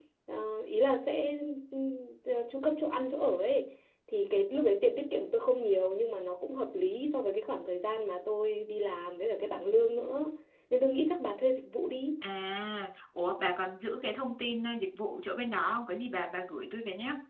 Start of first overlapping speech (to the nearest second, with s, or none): none